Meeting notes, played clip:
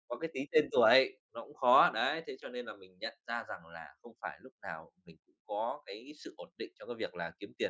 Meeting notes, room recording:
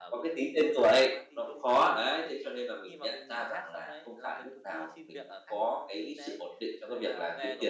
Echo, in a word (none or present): present